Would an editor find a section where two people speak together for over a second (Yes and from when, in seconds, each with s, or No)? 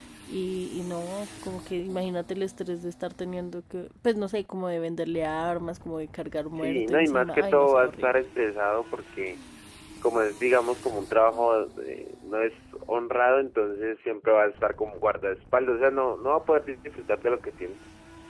Yes, from 6.5 s